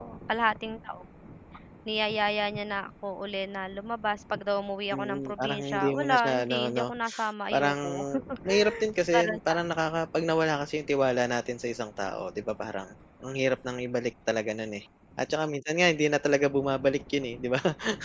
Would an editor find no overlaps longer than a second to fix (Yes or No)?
No